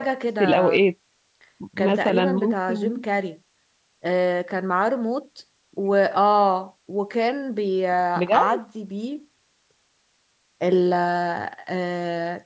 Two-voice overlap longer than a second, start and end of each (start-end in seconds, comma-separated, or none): 1.8-3.0